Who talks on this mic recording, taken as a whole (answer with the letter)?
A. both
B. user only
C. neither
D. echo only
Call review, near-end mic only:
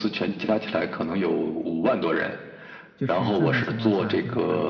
A